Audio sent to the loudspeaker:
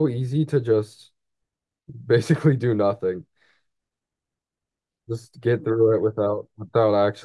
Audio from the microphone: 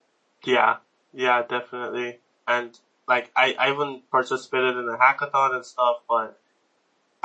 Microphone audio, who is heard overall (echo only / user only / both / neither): user only